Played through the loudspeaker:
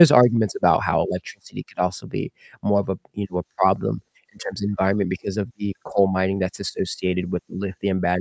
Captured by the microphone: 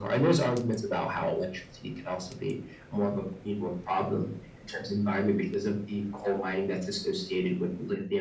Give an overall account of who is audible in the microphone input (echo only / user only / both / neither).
echo only